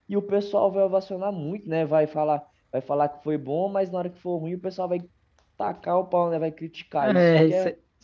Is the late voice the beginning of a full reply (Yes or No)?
Yes